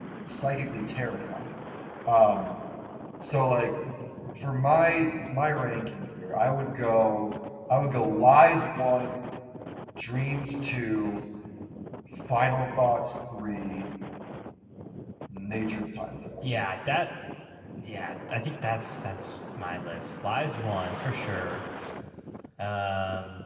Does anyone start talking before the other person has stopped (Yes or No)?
No